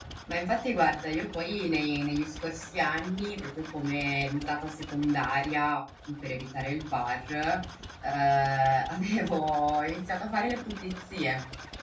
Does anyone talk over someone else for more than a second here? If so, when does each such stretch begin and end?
none

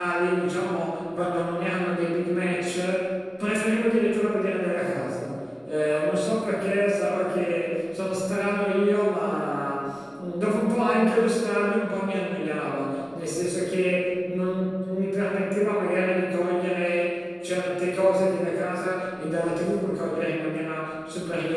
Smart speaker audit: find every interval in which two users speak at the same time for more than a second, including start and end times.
none

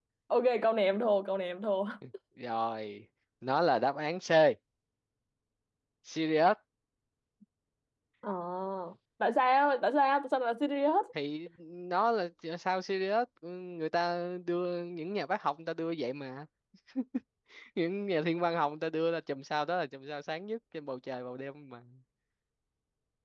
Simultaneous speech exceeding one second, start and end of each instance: none

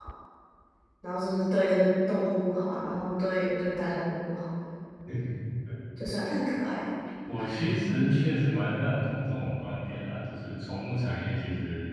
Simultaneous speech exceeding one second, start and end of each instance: none

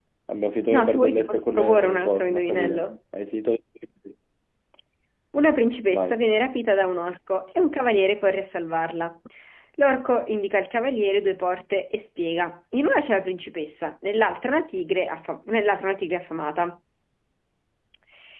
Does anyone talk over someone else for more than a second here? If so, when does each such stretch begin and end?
0.7-2.8

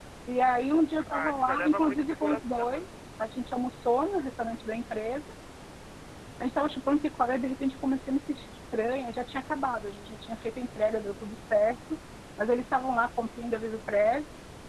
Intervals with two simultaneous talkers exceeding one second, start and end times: 1.1-2.9

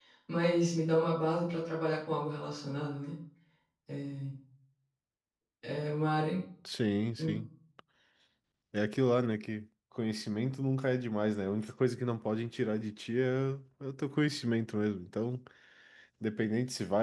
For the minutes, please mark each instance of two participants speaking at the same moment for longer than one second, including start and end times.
none

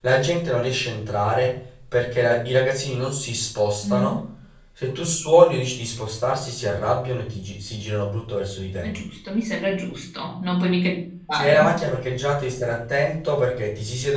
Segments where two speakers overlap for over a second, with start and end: none

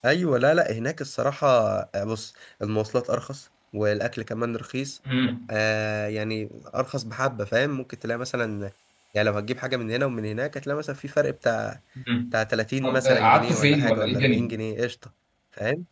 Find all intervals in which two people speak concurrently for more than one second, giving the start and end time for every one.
12.8-14.5

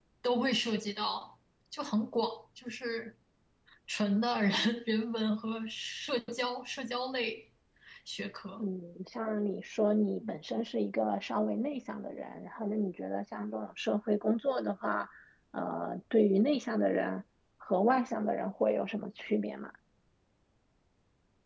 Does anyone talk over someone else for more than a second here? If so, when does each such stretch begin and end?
none

